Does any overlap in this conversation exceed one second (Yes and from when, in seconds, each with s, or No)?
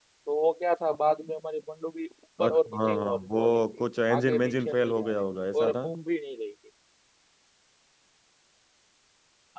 Yes, from 2.4 s